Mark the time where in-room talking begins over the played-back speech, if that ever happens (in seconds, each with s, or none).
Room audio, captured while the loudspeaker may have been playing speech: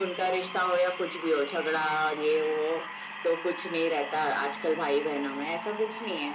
none